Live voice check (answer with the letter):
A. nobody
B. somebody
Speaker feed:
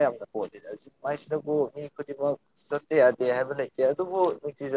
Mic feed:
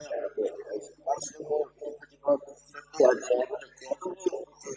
A